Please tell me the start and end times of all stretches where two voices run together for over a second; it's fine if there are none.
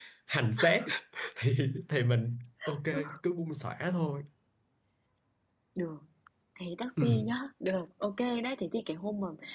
none

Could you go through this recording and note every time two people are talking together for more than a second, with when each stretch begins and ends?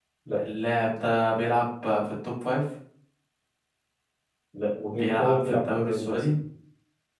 4.9-6.2

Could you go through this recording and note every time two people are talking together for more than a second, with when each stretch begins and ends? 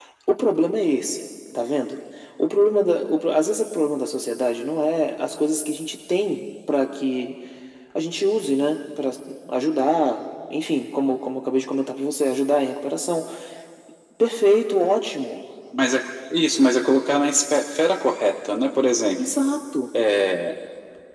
none

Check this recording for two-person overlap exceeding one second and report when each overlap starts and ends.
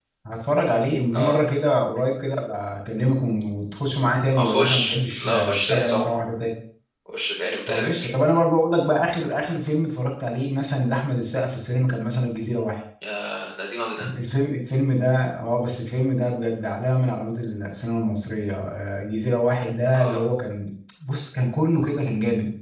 4.4-6.1

